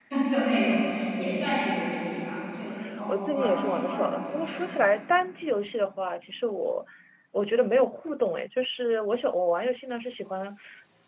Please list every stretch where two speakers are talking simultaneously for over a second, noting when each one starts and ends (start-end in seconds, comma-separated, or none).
3.1-4.6